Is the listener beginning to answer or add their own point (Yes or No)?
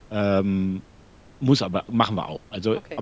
No